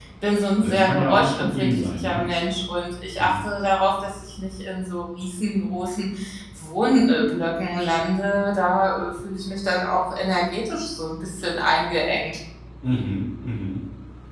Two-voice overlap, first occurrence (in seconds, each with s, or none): 0.6 s